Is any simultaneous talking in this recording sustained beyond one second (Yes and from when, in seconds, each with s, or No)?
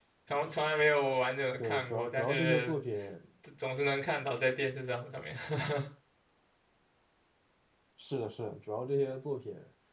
Yes, from 1.6 s